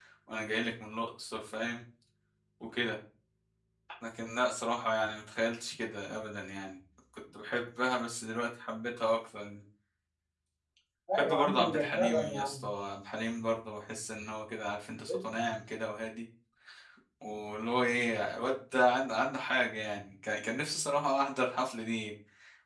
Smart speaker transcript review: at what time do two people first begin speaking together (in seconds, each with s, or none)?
11.1 s